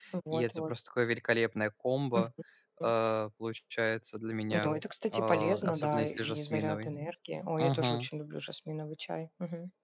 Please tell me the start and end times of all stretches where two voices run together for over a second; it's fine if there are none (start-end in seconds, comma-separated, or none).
5.1-6.9